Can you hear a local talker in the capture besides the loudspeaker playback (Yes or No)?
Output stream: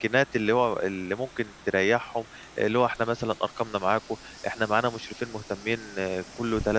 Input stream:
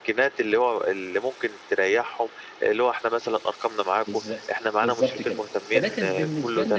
Yes